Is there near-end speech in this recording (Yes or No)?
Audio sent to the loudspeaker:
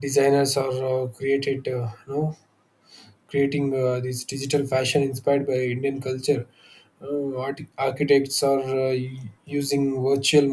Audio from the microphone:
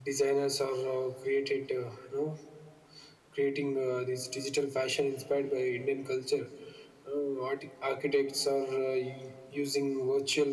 No